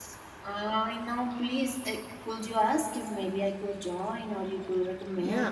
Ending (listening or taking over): taking over